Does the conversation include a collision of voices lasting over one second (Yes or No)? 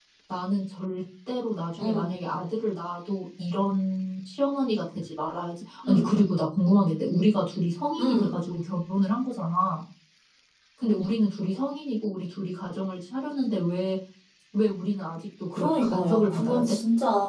Yes